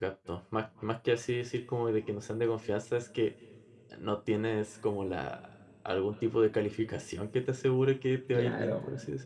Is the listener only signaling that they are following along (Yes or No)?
No